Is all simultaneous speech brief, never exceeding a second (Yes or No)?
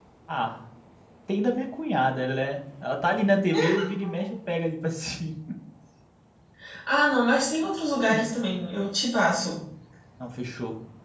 Yes